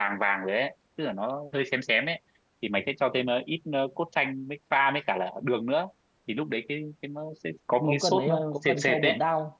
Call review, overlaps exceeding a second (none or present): present